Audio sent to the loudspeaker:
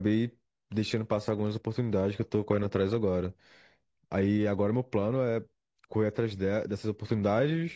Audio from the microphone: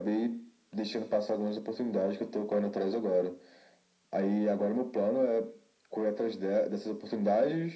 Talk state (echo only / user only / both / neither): echo only